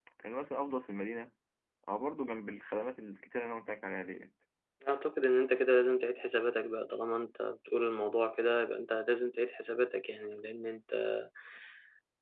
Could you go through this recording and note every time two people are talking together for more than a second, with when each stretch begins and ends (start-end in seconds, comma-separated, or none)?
none